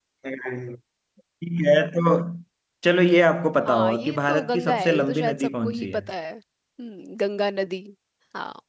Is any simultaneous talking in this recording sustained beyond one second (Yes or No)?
Yes